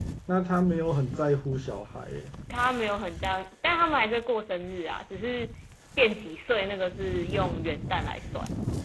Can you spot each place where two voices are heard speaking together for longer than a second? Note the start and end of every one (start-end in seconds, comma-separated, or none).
none